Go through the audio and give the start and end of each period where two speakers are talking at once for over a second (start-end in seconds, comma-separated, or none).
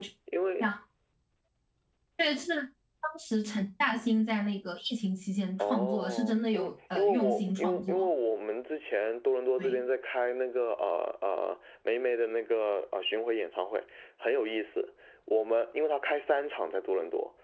5.6-8.1